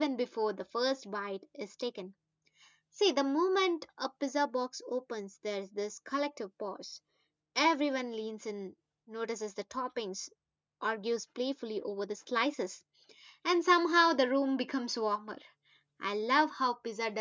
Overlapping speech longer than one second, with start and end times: none

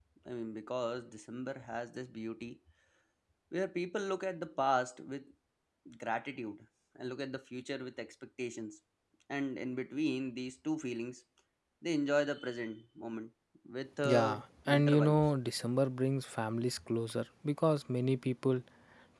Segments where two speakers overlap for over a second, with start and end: 14.1-15.3

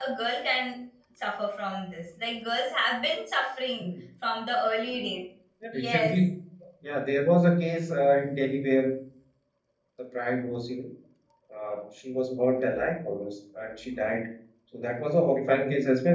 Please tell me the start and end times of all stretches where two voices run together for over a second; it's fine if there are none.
none

